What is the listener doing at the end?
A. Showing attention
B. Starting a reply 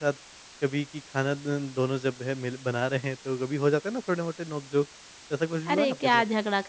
B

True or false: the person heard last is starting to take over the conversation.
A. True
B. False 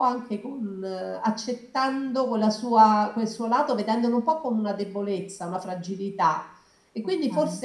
B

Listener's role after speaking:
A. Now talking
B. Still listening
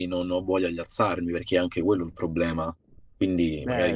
A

